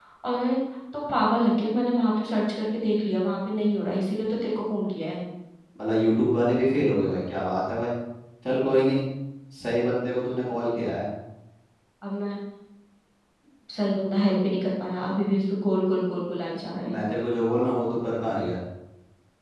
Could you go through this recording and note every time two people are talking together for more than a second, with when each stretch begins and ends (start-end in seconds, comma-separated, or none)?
none